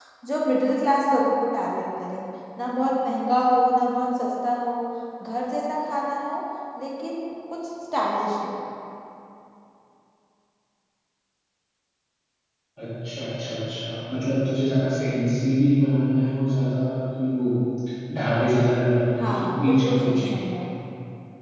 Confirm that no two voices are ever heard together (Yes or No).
No